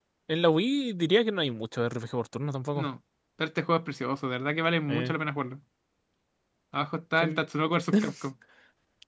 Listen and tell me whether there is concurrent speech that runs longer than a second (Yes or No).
No